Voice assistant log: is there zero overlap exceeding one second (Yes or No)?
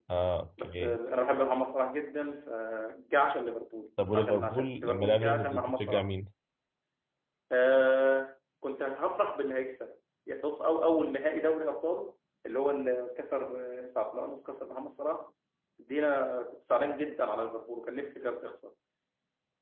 No